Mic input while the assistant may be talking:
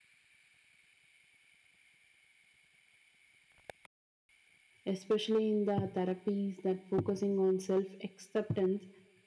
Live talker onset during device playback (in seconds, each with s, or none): 4.8 s